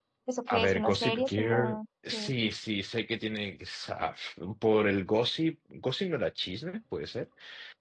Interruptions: present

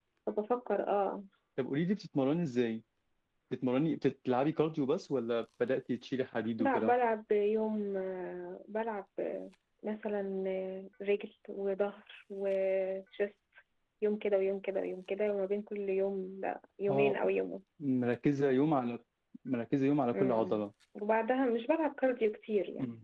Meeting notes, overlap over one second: none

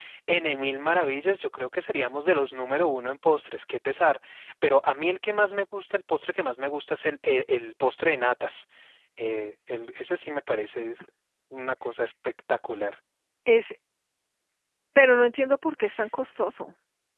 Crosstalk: none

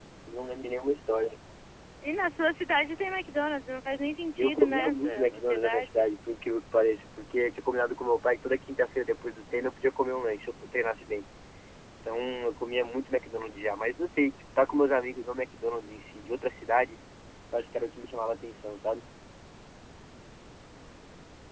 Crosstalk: present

